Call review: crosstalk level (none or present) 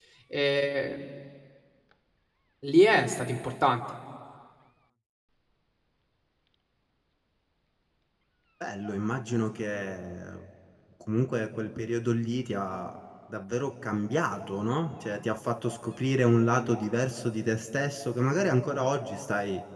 none